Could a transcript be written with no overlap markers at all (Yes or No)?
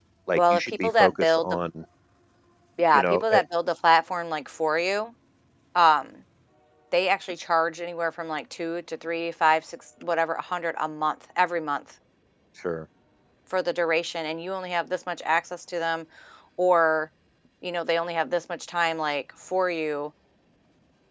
No